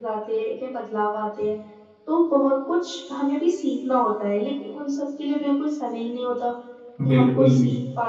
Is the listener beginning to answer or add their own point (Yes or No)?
No